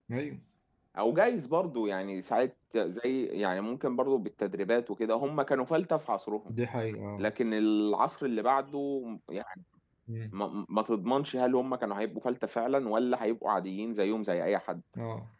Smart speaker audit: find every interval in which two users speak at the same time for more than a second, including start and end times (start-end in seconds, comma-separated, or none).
none